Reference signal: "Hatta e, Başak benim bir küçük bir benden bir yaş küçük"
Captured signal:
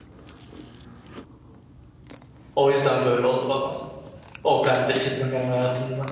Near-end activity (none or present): present